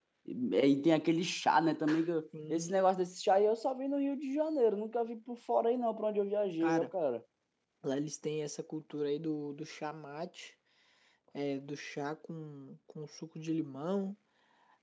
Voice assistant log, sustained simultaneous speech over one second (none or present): none